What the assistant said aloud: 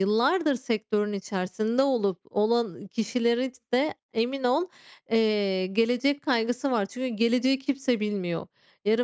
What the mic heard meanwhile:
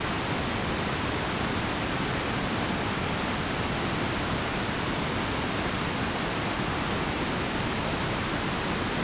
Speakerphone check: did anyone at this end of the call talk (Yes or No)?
No